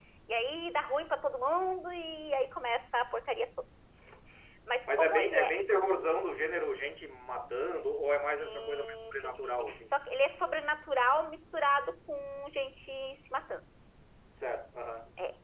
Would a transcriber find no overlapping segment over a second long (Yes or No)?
No